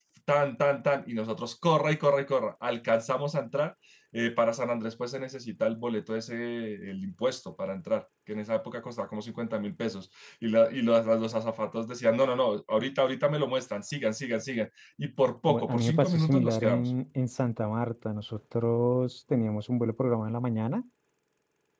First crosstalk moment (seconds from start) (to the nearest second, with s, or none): 15 s